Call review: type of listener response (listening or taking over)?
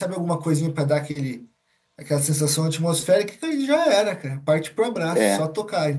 listening